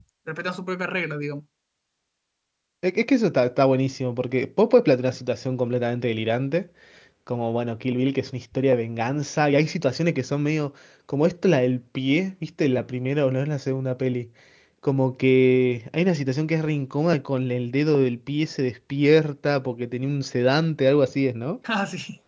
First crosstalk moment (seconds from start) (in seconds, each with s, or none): none